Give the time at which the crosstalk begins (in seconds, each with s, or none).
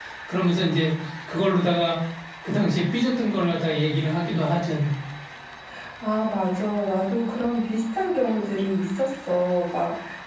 none